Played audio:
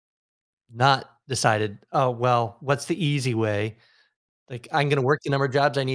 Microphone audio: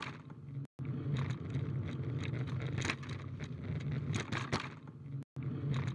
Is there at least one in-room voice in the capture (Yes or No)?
No